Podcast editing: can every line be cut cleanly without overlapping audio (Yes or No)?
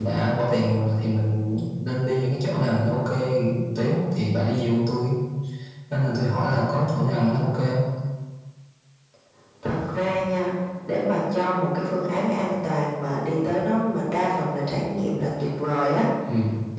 Yes